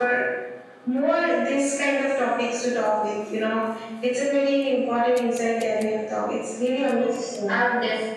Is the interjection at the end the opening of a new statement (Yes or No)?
Yes